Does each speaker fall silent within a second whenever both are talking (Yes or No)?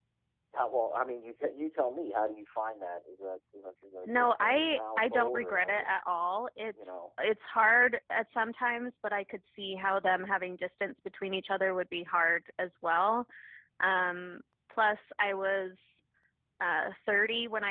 No